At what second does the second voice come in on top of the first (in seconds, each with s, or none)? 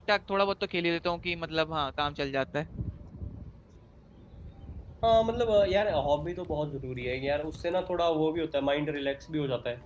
none